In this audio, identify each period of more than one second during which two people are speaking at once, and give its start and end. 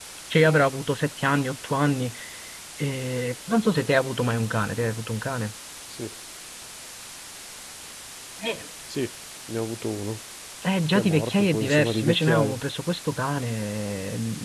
10.9-12.6

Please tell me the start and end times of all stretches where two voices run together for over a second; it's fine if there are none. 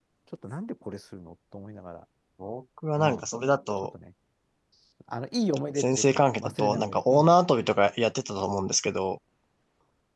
5.8-7.3

